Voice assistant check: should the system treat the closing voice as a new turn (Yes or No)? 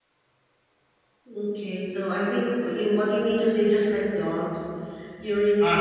No